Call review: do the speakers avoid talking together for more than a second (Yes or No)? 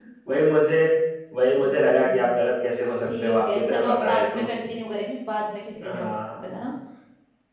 No